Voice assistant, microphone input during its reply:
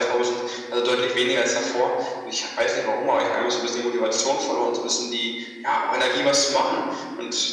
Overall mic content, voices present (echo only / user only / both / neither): echo only